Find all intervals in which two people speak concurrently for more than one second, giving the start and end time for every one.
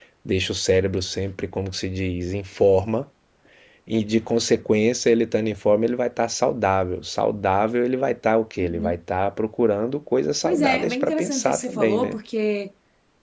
10.4-12.2

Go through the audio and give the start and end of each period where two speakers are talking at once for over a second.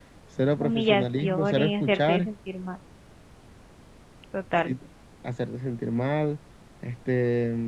0.6-2.3

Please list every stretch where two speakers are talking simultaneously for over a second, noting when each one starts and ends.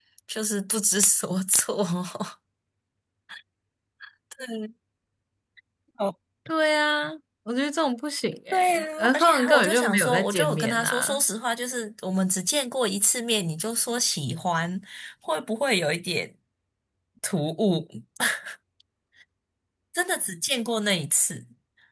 8.5-11.2

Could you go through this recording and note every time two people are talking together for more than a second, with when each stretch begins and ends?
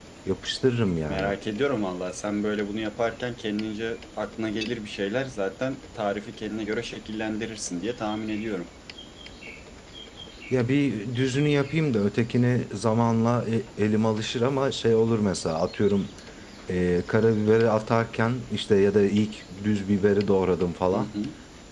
none

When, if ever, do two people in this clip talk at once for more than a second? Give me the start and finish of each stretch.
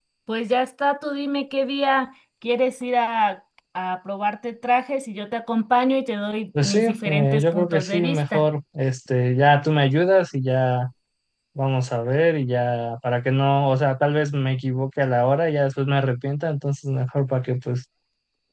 6.6-8.4

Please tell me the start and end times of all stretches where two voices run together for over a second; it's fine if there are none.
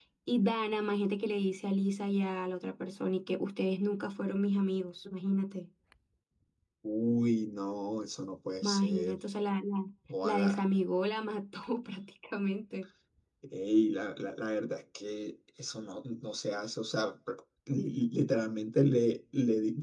none

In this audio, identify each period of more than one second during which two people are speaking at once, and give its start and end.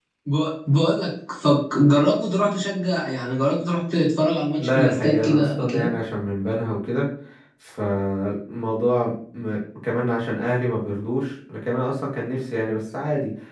4.6-5.9

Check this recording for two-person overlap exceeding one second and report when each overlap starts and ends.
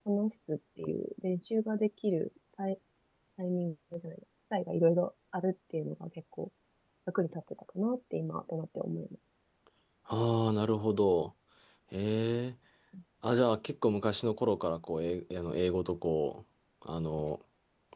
none

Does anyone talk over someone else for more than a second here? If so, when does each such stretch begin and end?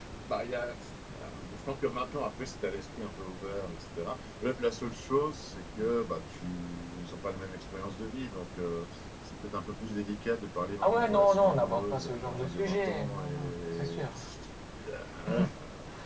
10.8-14.1

